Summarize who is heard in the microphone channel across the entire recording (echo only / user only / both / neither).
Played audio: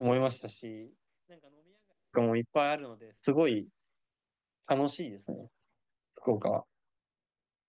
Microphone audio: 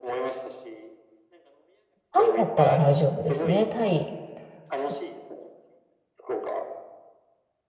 both